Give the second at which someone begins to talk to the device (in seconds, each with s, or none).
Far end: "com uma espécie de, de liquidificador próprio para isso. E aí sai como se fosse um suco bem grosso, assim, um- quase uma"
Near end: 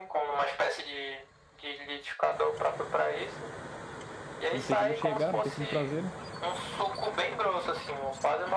4.5 s